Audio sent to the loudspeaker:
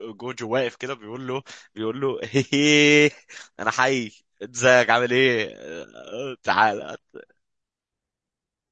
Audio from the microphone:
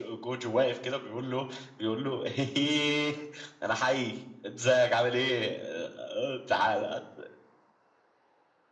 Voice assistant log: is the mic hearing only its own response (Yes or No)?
Yes